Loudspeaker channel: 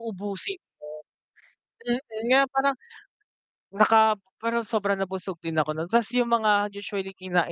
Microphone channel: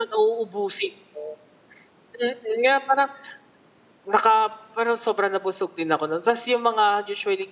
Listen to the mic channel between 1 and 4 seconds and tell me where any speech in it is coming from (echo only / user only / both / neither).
echo only